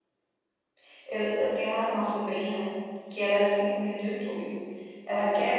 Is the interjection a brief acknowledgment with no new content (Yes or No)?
Yes